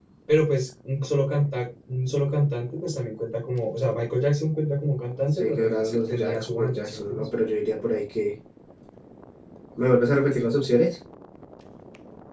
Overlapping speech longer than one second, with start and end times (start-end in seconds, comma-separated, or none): 5.4-7.2